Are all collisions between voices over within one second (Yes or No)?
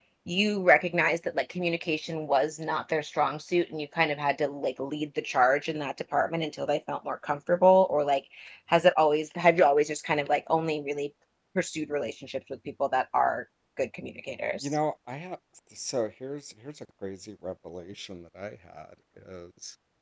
Yes